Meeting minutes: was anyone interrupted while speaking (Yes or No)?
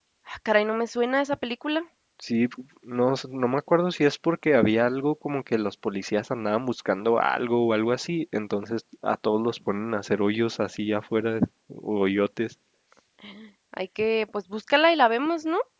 No